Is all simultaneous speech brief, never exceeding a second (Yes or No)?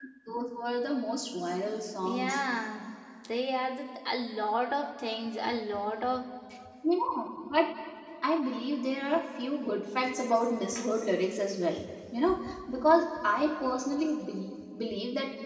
Yes